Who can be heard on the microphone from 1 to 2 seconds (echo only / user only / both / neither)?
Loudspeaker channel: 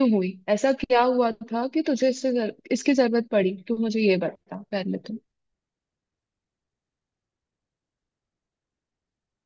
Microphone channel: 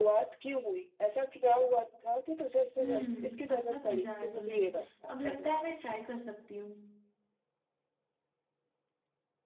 echo only